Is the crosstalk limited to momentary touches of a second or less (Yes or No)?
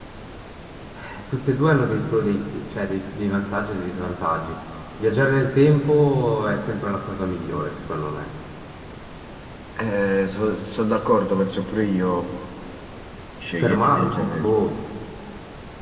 No